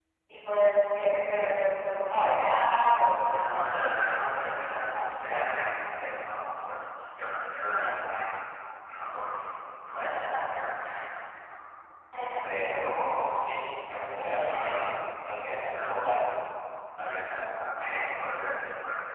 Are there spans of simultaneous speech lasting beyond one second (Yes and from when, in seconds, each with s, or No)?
Yes, from 3.2 s